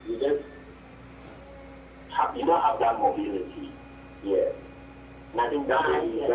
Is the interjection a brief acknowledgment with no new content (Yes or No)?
Yes